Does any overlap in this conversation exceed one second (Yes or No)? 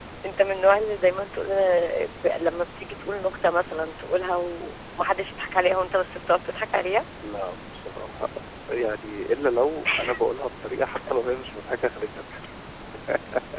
No